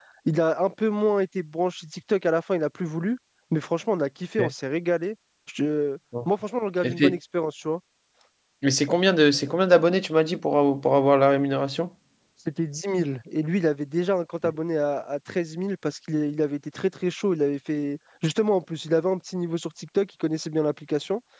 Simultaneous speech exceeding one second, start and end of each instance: none

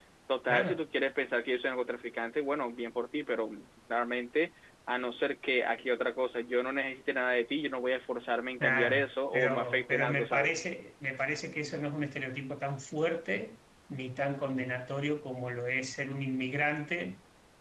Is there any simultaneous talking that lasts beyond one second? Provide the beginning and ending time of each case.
8.6-10.5

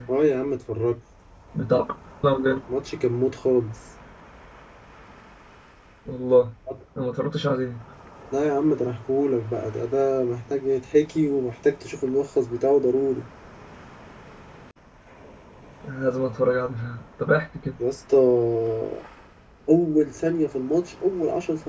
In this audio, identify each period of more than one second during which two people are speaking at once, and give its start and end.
none

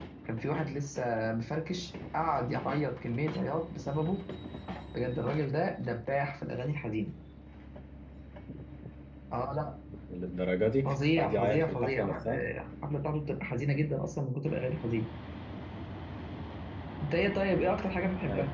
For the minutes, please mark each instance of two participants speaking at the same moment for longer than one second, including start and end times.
10.8-12.4

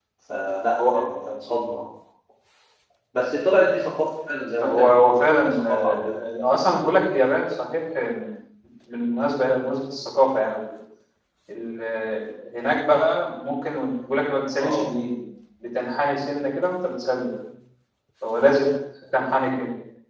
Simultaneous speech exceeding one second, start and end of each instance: 4.6-6.2

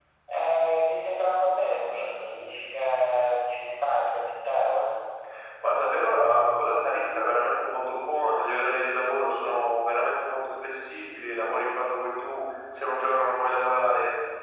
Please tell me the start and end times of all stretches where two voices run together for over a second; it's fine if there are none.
none

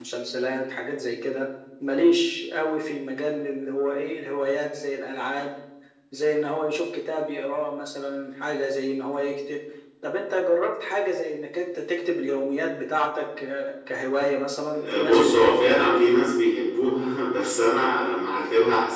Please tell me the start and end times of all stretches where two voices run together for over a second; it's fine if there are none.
14.7-16.1

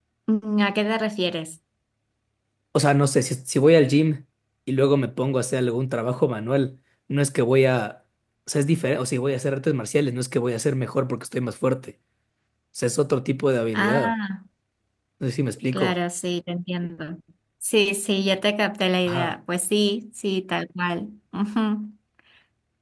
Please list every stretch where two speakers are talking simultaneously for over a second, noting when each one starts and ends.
none

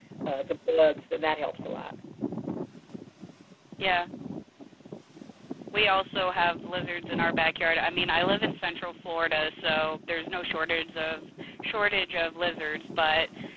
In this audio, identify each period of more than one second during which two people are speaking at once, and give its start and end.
none

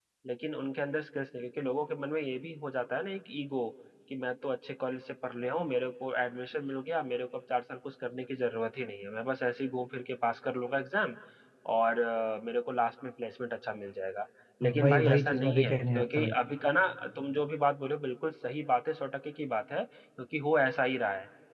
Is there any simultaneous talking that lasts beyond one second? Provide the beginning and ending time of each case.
14.8-16.3

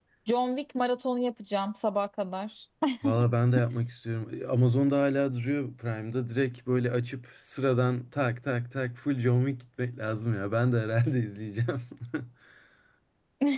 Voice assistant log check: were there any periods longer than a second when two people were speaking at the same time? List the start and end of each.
none

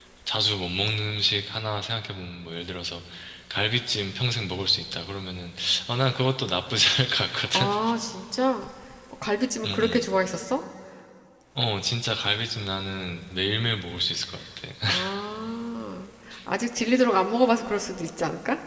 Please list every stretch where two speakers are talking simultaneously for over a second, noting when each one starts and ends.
none

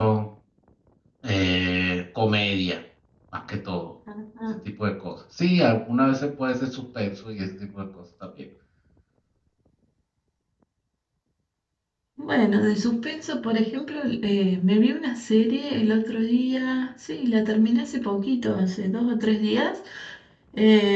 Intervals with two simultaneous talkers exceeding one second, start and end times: none

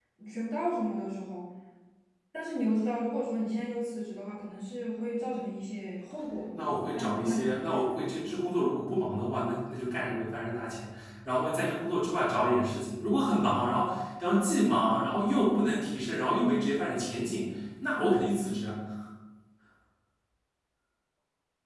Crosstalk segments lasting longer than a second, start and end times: 6.5-7.9

